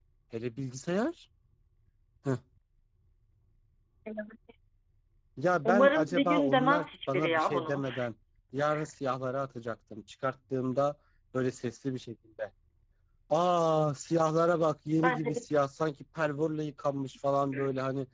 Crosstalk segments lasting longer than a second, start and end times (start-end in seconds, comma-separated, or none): 5.7-7.8